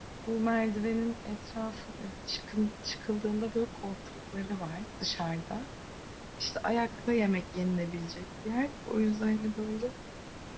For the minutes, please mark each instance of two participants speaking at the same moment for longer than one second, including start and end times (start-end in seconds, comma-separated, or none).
none